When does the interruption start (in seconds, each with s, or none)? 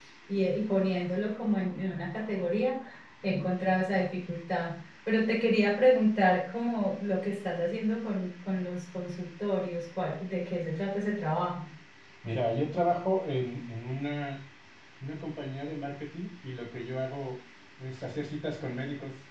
none